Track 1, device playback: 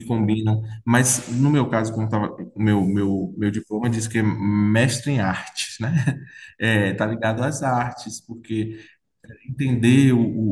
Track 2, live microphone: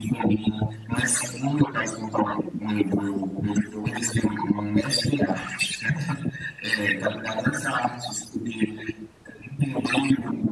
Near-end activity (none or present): none